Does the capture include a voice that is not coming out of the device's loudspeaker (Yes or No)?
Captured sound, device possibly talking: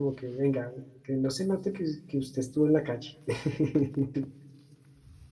Yes